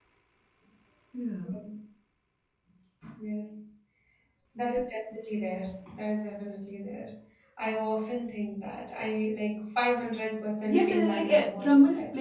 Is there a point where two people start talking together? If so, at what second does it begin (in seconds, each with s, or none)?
10.7 s